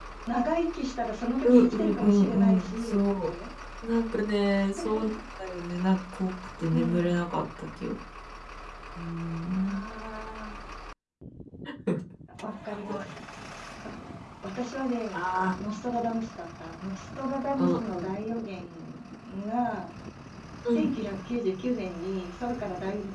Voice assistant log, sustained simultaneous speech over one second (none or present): present